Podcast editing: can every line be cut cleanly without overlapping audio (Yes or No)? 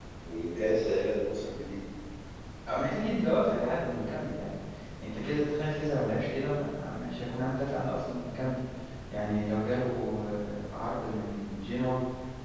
Yes